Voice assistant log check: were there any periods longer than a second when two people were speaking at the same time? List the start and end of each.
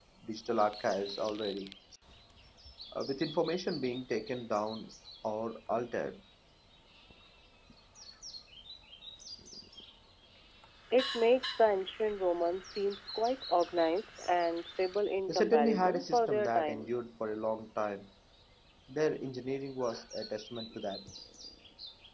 15.3-16.9

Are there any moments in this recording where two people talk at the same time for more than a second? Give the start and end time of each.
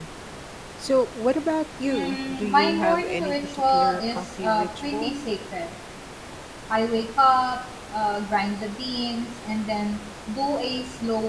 1.8-5.1

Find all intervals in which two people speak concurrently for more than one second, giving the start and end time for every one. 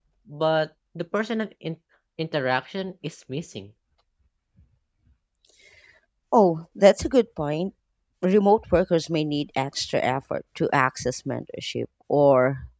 none

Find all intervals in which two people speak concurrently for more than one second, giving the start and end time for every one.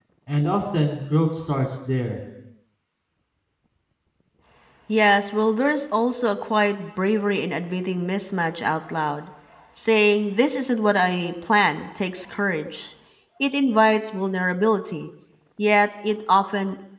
none

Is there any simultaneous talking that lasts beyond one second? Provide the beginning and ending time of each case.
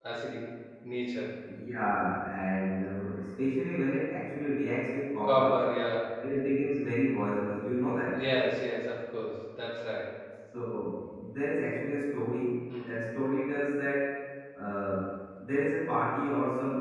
none

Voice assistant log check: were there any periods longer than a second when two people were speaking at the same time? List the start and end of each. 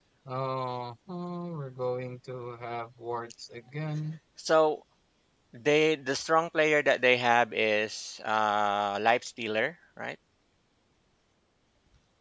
none

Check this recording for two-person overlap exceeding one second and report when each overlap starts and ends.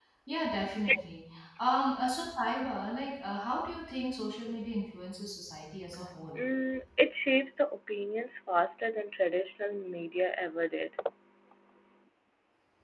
none

